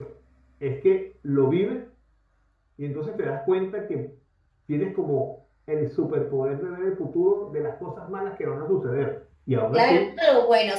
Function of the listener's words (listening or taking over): taking over